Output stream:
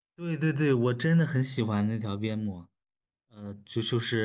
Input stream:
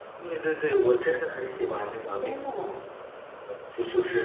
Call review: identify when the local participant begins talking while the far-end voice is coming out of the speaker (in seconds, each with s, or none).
2.1 s